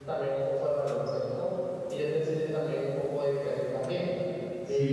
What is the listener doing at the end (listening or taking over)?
taking over